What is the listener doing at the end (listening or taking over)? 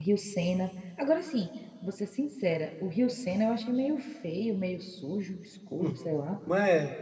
taking over